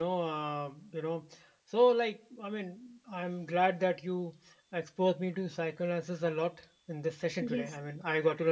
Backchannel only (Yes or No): Yes